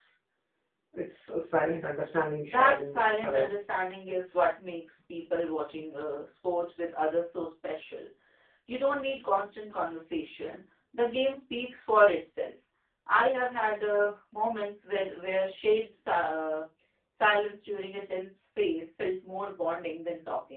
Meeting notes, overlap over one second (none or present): present